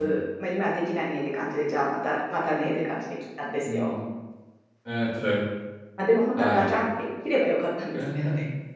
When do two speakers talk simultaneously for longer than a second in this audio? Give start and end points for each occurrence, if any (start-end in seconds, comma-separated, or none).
none